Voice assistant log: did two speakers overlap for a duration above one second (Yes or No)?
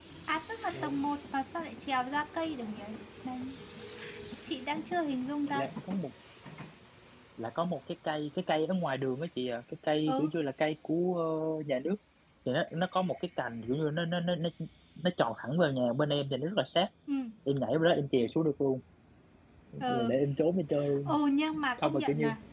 No